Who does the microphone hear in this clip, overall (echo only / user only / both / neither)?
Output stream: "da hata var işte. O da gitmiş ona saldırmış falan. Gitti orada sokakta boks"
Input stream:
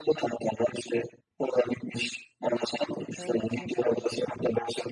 both